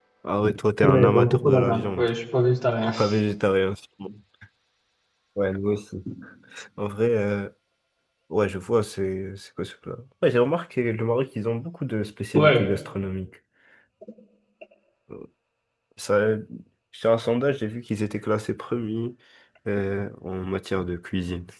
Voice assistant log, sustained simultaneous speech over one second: present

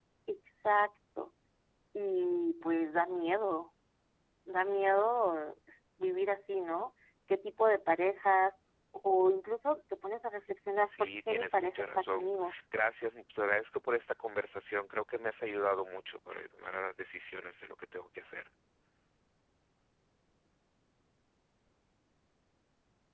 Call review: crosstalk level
present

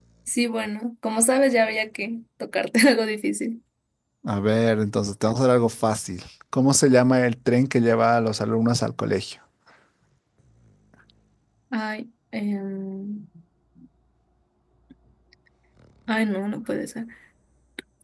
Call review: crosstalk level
none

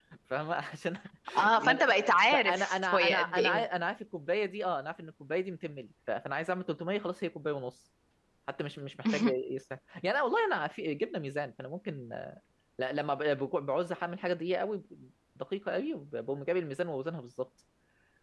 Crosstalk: present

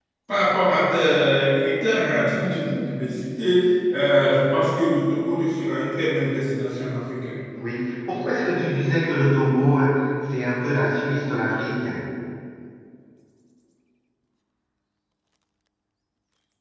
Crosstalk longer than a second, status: none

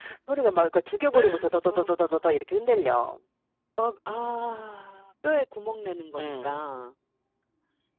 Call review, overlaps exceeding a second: none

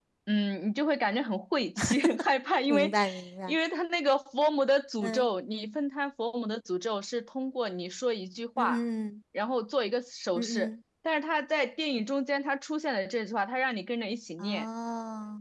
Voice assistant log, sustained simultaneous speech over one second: none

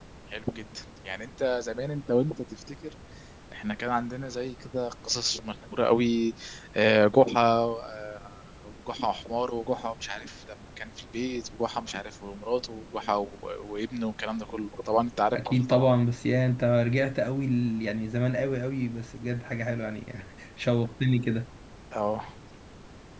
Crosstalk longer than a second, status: none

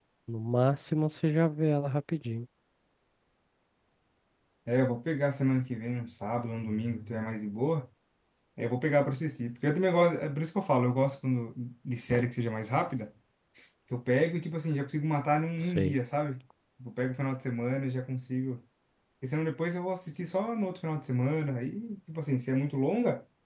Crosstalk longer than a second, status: none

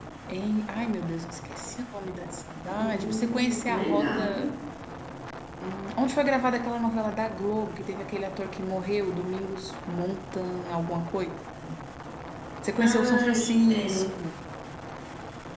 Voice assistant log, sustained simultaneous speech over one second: present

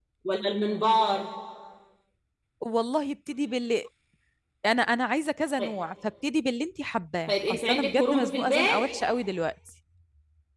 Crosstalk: present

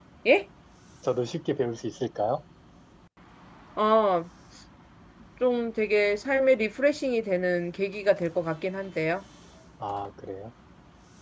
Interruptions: none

